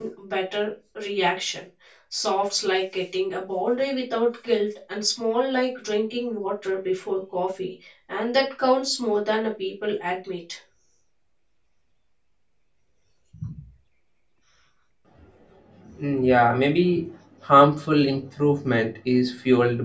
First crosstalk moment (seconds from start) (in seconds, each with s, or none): none